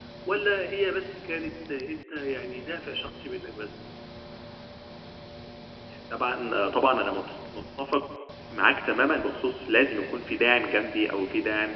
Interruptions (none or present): none